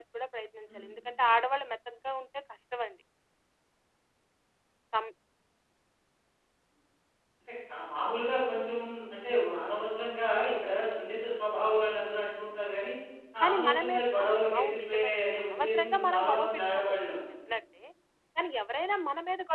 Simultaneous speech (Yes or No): Yes